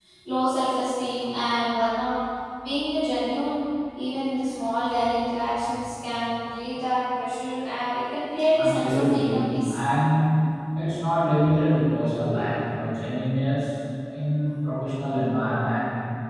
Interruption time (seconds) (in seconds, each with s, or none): 8.5 s